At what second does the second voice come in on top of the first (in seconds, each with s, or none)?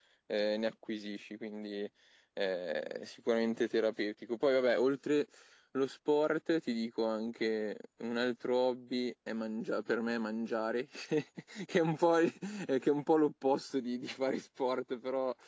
none